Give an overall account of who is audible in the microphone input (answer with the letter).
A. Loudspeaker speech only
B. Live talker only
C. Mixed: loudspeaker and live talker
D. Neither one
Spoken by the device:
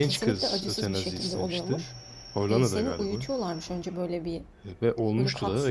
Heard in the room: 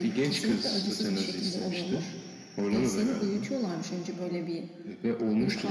A